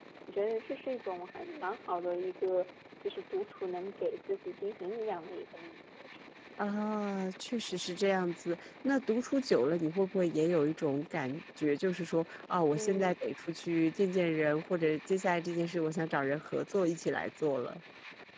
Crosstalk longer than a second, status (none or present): none